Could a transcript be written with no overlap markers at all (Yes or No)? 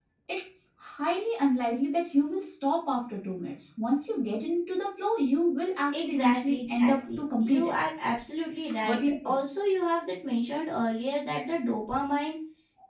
No